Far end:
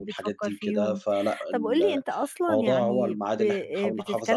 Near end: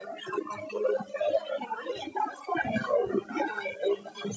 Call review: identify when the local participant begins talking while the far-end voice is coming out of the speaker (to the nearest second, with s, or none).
none